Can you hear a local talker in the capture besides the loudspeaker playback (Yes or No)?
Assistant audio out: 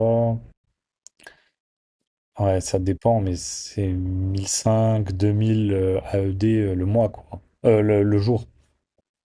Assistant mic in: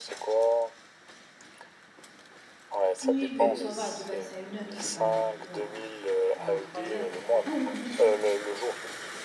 Yes